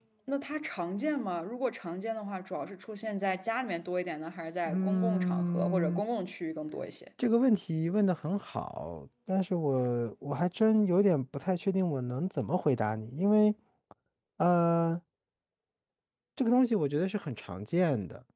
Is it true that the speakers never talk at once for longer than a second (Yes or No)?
No